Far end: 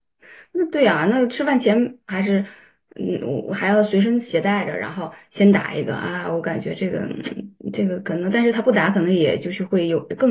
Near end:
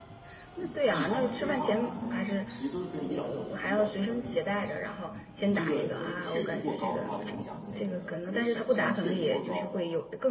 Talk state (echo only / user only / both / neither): both